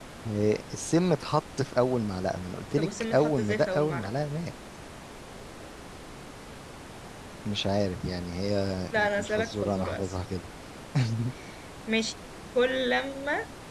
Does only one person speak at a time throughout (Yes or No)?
No